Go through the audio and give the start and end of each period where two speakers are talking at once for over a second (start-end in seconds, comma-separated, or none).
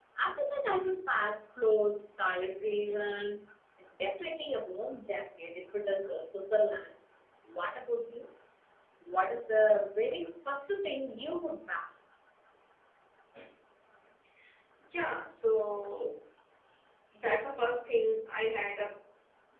none